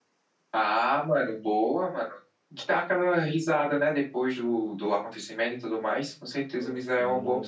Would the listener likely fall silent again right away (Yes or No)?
No